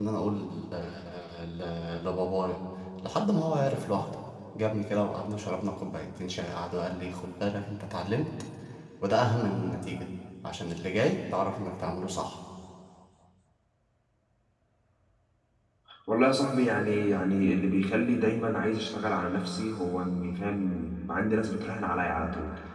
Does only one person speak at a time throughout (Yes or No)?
Yes